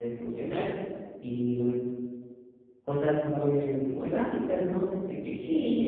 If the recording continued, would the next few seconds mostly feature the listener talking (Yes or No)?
Yes